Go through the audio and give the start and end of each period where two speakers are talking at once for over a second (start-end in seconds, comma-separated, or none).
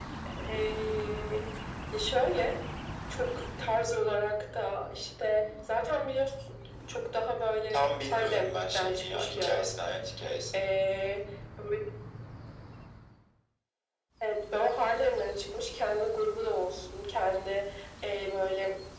7.7-9.7